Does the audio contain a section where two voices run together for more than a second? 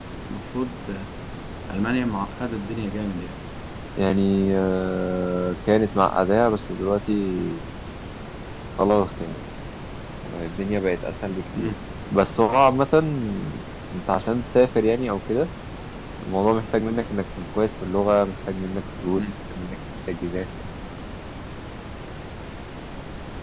No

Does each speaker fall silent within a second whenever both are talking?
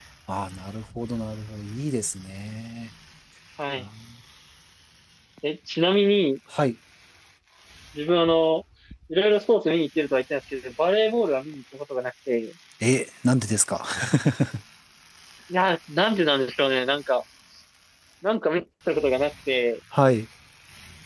Yes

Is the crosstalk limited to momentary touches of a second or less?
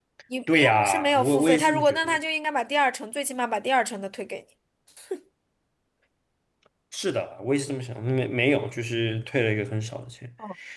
No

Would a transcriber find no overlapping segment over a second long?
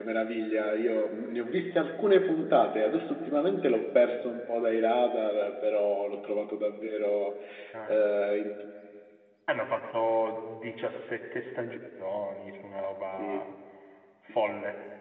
Yes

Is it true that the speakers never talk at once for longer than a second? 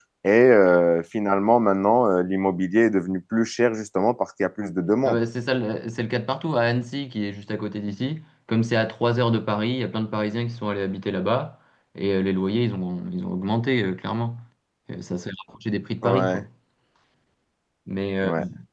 Yes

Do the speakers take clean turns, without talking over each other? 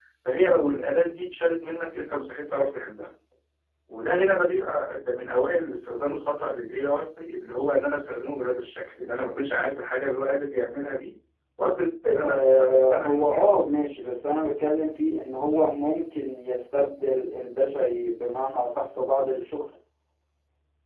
No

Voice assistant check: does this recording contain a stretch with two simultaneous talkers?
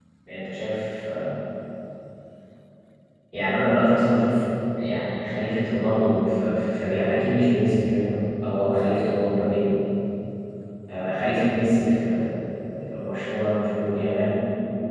No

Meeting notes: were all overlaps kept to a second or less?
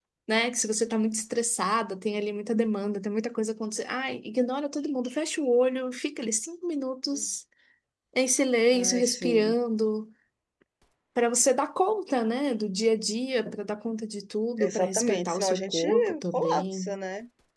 No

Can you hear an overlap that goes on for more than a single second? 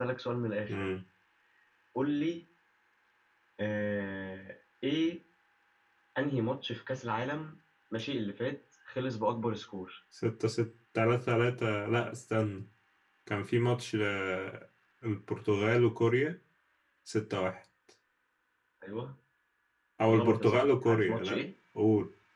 Yes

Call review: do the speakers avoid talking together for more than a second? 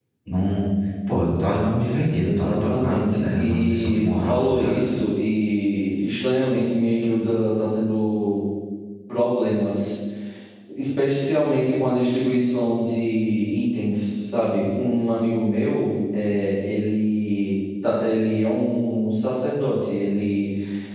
No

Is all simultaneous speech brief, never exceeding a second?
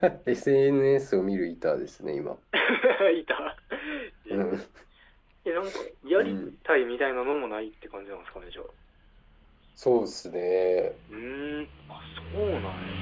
Yes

